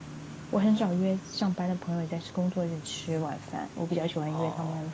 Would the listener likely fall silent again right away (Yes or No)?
Yes